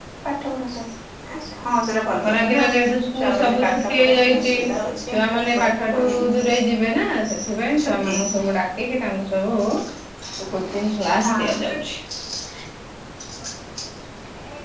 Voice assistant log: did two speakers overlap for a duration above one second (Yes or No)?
Yes